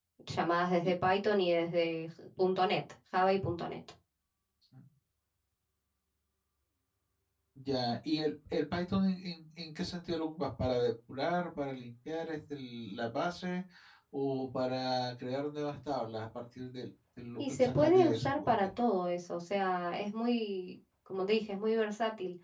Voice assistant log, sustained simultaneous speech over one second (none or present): present